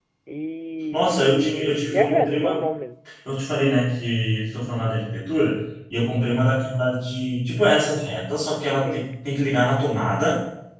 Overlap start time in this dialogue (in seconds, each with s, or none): 0.9 s